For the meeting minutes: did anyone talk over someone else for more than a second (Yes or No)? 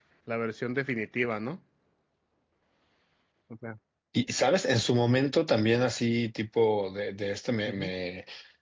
No